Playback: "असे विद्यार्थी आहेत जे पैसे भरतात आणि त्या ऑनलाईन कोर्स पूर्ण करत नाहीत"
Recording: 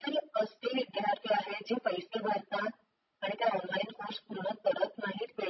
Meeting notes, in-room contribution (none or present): none